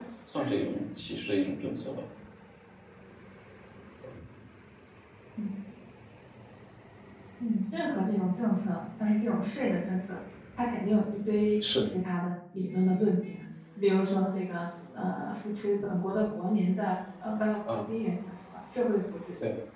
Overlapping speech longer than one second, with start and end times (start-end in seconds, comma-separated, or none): none